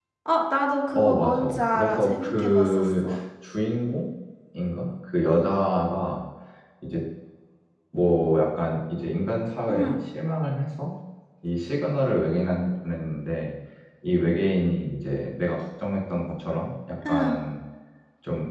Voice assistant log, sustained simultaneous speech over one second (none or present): present